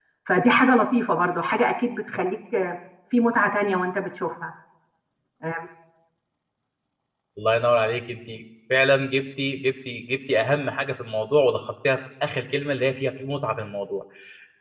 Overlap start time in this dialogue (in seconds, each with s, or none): none